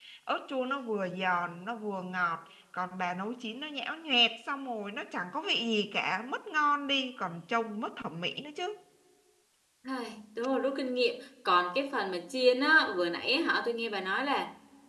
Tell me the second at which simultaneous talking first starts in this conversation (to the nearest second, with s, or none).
none